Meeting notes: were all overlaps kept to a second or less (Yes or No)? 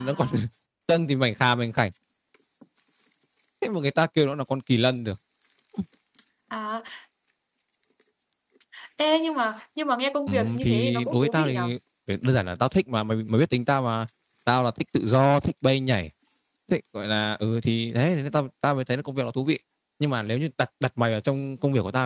No